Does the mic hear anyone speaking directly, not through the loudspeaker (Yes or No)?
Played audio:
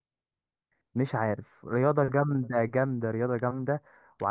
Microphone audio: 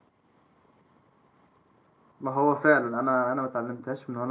Yes